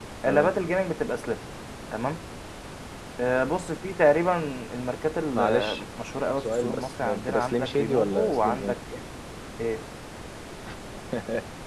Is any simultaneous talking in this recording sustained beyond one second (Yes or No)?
Yes